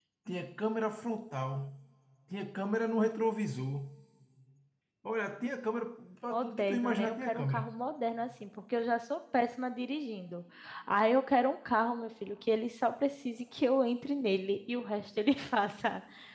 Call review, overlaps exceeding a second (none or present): present